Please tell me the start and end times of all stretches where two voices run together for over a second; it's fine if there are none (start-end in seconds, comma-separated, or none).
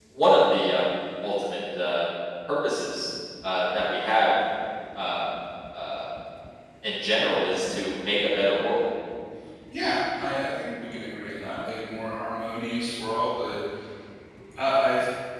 none